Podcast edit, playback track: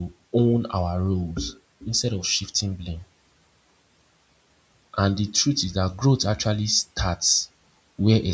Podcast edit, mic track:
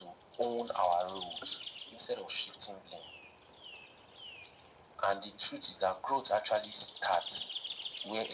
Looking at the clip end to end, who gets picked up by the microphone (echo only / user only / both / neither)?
echo only